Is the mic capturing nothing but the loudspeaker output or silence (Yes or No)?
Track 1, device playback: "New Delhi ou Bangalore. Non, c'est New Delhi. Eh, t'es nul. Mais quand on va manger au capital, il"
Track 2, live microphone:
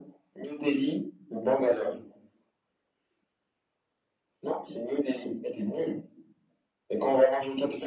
Yes